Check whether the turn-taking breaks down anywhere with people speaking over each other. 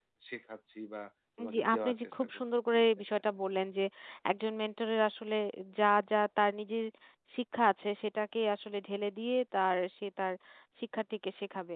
Yes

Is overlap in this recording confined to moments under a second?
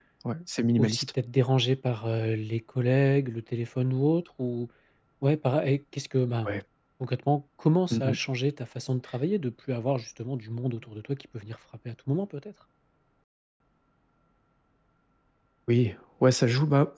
Yes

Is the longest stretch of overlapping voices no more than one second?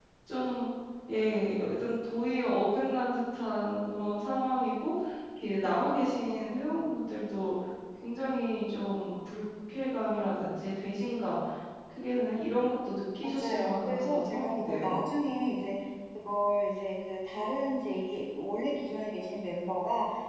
No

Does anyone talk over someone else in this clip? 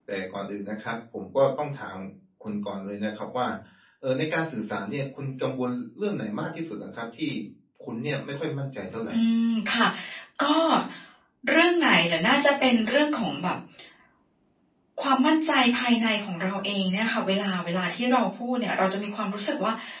No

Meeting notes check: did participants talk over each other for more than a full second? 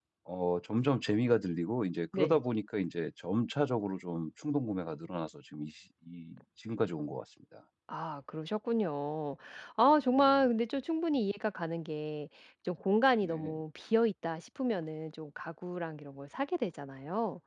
No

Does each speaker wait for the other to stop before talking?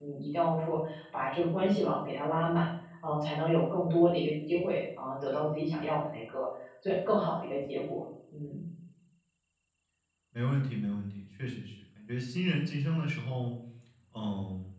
Yes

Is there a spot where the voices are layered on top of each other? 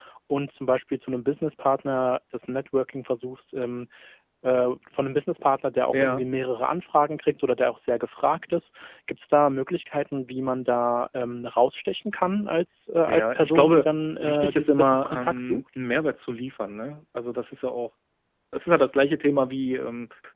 Yes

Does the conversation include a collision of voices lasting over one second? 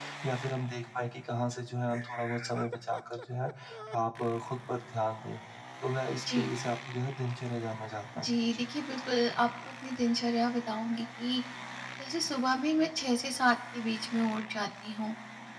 No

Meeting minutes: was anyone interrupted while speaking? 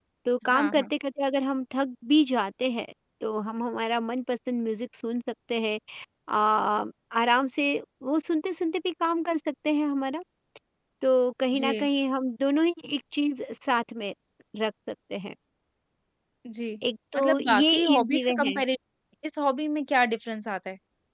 Yes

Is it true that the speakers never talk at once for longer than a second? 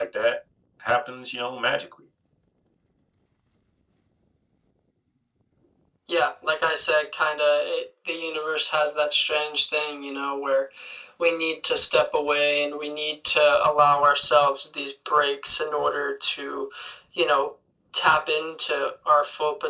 Yes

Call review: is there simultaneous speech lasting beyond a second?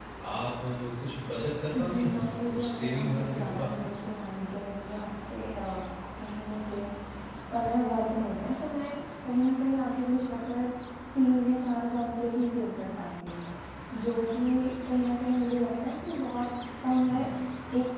Yes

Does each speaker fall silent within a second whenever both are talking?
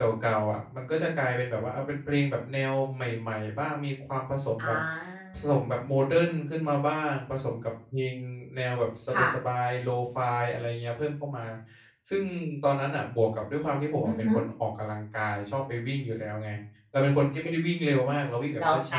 Yes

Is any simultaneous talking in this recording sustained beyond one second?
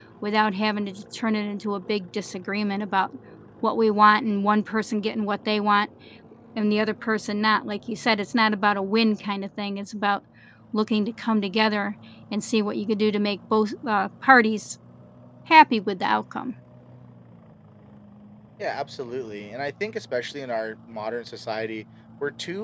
No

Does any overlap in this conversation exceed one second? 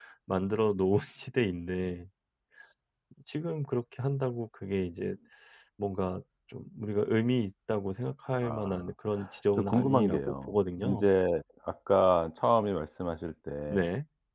Yes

